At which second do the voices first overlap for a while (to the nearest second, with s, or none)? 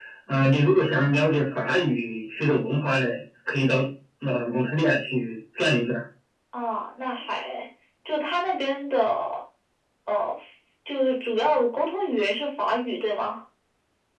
none